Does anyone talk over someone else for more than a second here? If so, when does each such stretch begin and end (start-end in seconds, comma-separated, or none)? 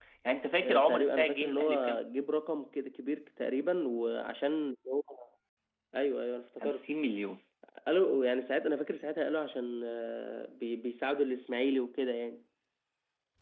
0.6-2.0